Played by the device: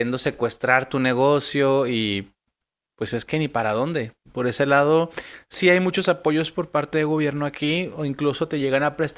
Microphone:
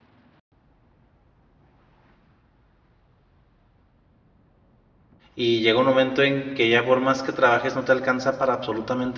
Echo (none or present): none